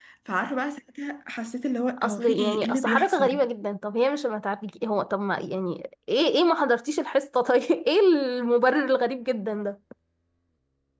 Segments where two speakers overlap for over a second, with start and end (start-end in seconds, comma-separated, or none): 2.0-3.4